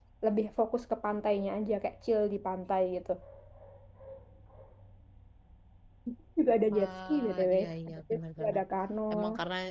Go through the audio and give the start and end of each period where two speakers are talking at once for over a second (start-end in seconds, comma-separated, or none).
6.7-8.6